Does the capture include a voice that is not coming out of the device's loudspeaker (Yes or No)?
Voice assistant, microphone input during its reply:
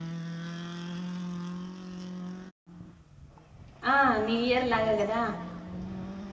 Yes